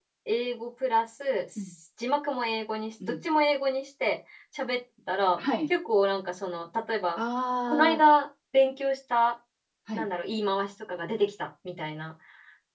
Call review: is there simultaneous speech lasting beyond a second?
No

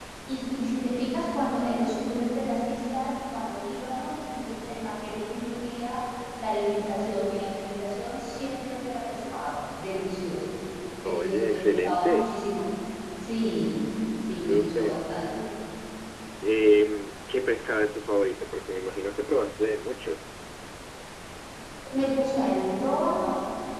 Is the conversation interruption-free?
No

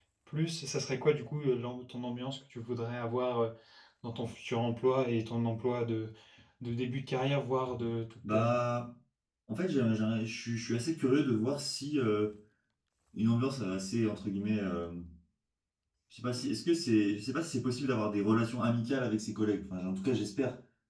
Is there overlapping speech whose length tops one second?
No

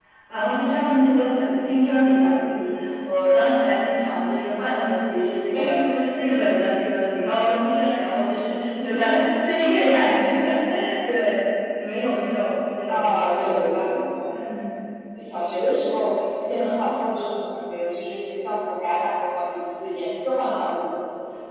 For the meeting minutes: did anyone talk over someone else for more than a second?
Yes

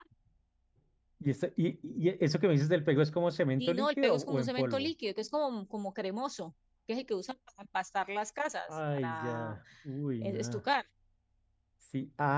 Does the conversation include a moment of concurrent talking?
Yes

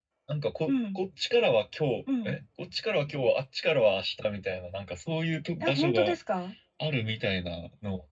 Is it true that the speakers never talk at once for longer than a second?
Yes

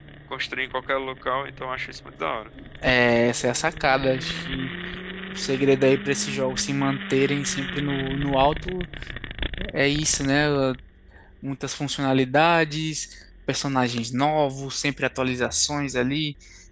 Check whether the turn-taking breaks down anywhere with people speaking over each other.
No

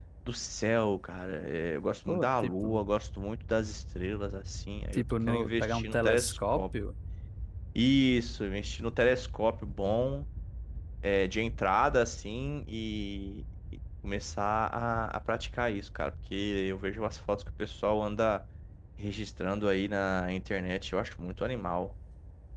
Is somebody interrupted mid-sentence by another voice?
Yes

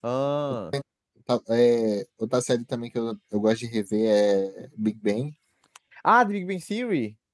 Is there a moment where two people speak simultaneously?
No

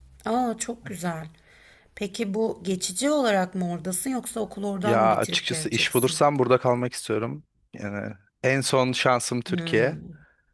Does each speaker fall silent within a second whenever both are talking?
No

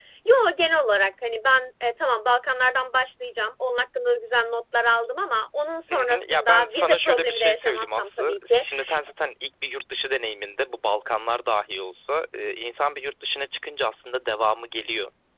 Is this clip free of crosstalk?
No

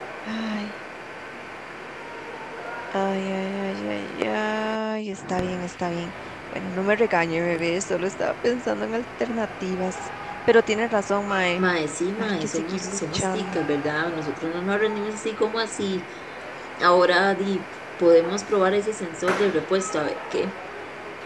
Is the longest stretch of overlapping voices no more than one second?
No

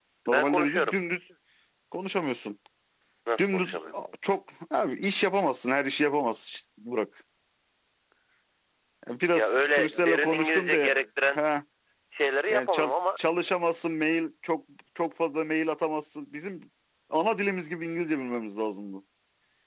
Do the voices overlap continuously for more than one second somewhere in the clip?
Yes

